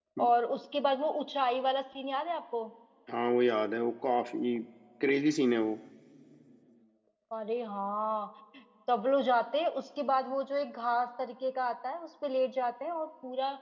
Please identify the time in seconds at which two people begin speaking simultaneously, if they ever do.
none

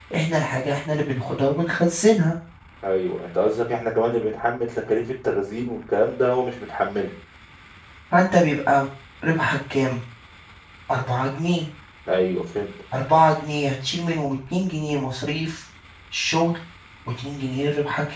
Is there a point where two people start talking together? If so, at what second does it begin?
none

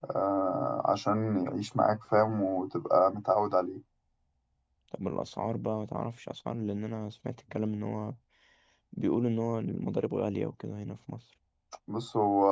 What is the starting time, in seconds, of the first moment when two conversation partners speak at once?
none

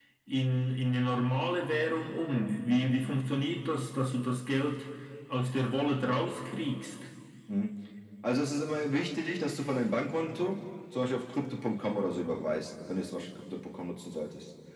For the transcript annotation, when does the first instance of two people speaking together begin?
none

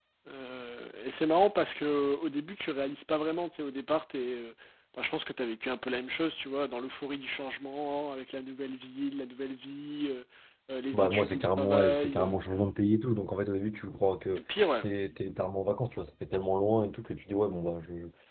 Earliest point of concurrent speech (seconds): 10.9 s

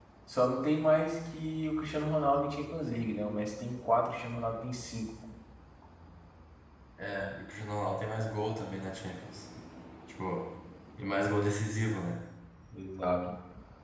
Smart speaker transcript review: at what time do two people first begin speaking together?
none

